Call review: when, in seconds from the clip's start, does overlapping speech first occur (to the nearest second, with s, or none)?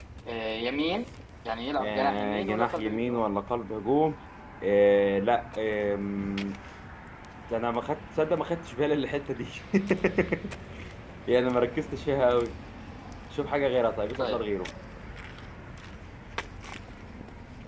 2 s